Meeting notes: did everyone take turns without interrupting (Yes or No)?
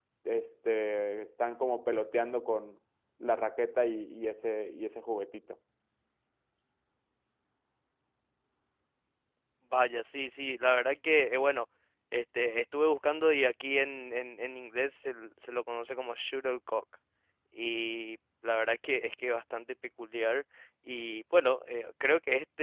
Yes